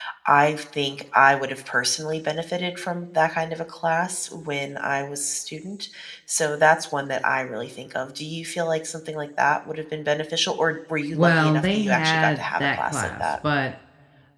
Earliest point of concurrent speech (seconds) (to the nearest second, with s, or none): 11 s